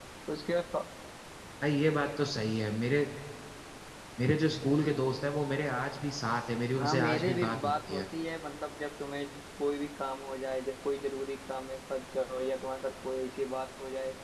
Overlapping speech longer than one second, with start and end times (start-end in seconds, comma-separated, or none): 6.8-8.0